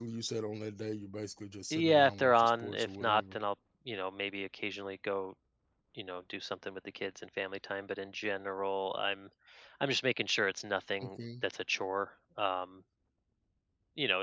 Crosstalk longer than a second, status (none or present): present